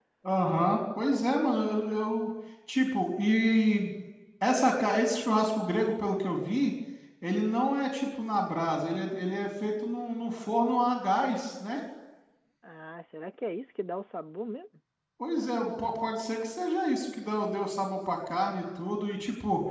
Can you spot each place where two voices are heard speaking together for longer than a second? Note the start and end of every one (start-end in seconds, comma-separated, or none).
none